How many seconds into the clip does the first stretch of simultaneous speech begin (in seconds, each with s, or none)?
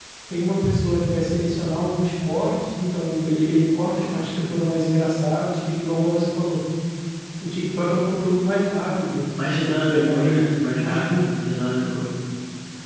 9.9 s